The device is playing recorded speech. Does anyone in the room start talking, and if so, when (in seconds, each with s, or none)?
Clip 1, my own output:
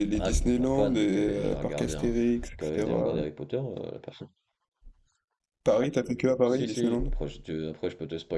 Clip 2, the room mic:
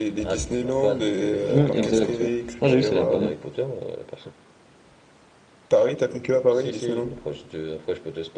1.5 s